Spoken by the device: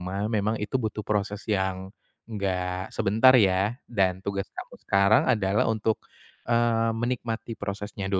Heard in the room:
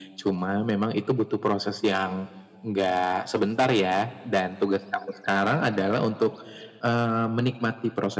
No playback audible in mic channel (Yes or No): No